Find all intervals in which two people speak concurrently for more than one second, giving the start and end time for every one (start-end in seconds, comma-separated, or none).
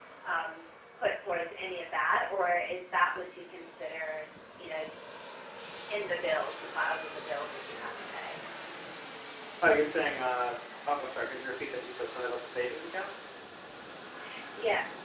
none